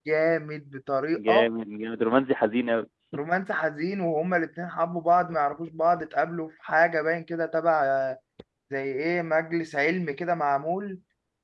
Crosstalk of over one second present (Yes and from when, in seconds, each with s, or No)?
No